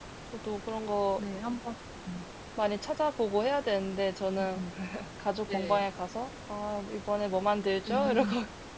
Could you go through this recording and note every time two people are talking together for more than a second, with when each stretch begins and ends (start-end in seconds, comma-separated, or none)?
none